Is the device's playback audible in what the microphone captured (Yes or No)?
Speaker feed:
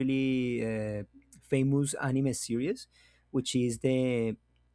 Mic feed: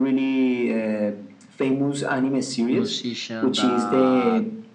Yes